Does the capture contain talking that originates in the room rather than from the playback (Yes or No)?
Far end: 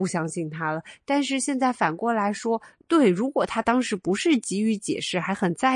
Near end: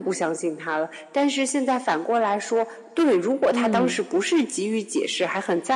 Yes